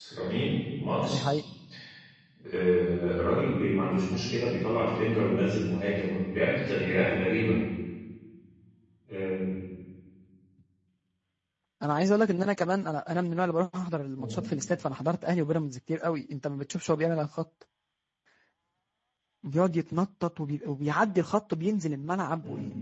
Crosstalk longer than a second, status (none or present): none